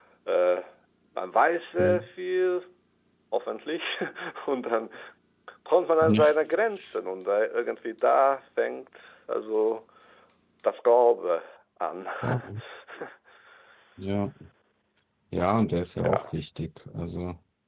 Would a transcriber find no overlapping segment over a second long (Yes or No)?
Yes